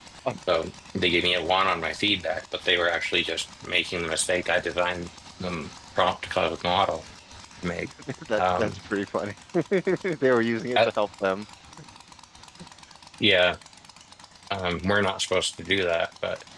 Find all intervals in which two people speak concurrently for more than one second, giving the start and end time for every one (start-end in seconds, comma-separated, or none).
none